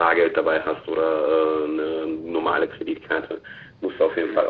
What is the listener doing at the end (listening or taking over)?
listening